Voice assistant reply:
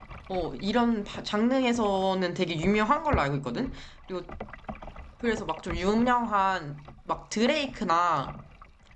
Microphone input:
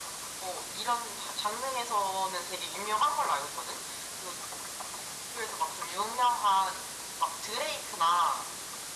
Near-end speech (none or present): none